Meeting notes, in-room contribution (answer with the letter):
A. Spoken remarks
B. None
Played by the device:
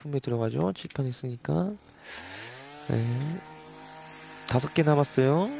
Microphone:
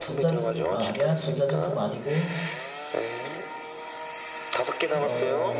A